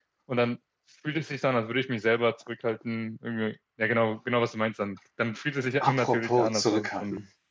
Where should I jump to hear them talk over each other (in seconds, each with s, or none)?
5.8 s